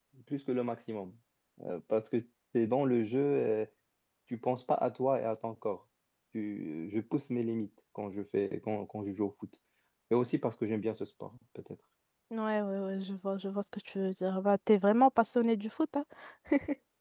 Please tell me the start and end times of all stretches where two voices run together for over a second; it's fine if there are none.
none

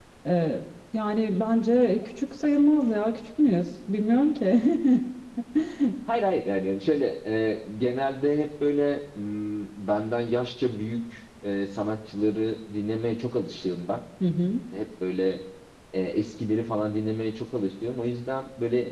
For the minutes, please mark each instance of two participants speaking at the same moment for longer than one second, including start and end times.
none

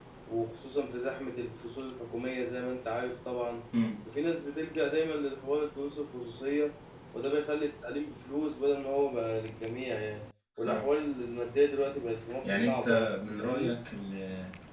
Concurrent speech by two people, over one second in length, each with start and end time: 12.4-13.7

